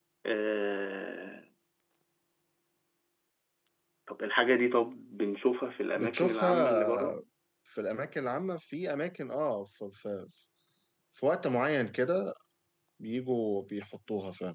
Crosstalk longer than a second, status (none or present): present